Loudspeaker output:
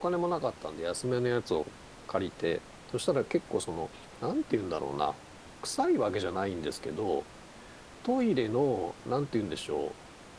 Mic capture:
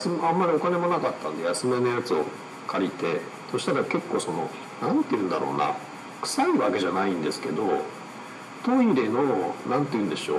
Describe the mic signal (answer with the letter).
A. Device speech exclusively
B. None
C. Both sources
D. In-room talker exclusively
A